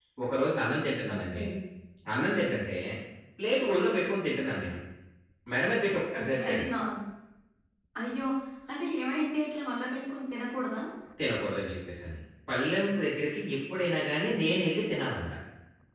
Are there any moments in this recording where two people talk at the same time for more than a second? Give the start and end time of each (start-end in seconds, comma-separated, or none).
none